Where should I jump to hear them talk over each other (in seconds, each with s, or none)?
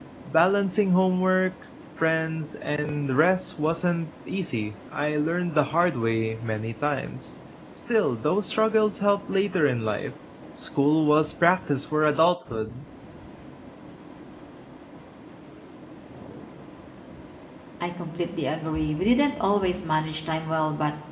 none